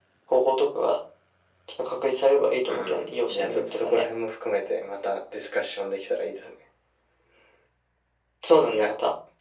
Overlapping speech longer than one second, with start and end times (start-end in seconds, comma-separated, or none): 2.7-4.0